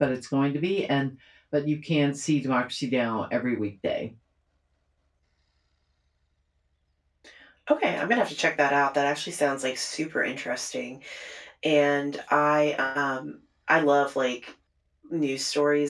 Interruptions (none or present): none